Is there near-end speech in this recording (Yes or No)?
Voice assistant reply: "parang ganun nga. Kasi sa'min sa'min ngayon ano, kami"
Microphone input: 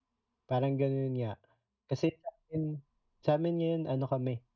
No